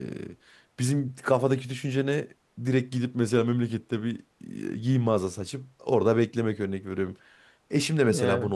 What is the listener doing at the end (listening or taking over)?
listening